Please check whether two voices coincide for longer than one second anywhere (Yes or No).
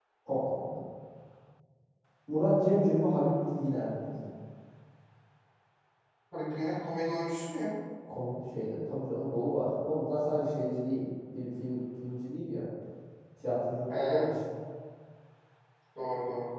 No